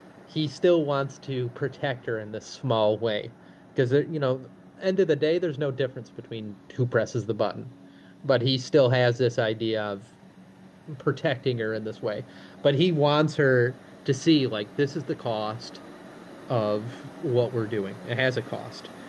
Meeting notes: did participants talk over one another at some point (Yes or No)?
No